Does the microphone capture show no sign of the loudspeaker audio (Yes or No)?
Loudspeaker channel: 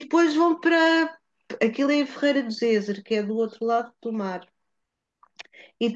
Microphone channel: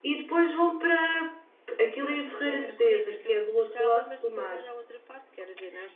No